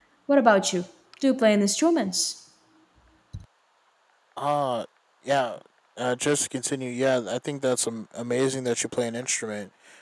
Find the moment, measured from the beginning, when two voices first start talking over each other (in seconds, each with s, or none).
none